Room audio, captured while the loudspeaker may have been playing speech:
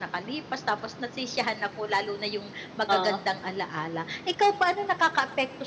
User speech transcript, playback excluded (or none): Oh.